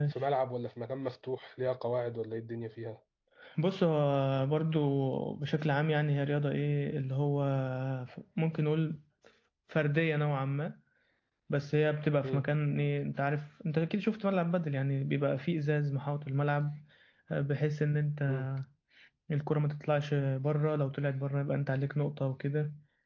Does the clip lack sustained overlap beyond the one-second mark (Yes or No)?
Yes